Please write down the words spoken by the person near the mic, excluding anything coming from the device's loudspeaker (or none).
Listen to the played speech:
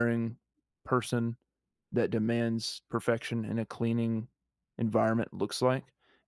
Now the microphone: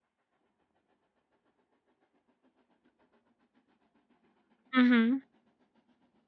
Mhm.